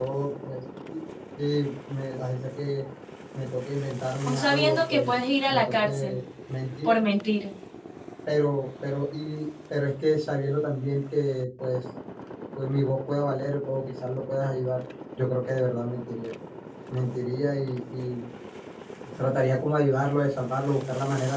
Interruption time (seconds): 4.3 s

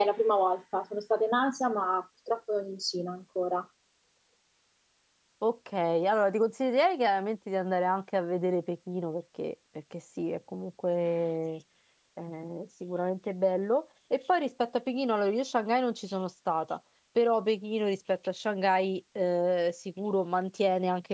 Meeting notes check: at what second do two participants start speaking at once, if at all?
none

